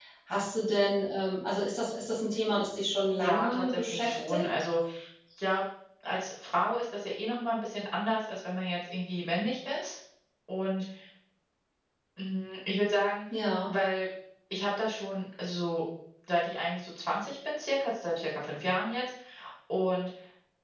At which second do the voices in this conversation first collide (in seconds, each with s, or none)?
3.1 s